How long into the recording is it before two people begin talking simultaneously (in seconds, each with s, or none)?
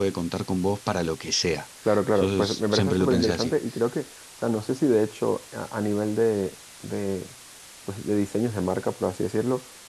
2.1 s